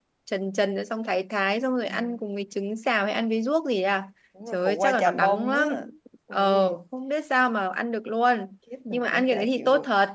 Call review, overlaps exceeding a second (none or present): present